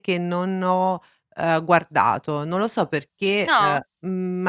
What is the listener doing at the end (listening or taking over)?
listening